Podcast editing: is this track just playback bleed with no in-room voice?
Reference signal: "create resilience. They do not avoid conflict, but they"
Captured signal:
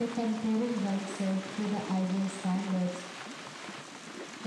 No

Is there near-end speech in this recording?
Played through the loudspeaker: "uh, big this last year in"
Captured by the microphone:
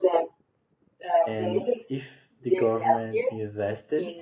Yes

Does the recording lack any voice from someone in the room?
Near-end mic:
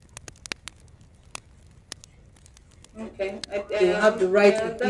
No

